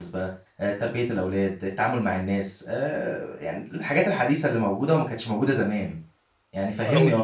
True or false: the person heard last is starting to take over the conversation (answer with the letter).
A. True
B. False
A